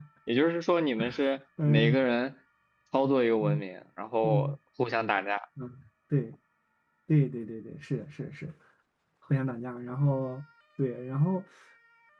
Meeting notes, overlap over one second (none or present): none